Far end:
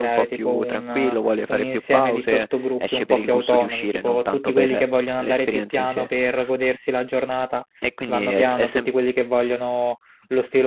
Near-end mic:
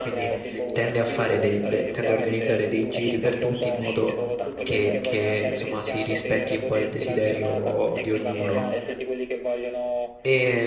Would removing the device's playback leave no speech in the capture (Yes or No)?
No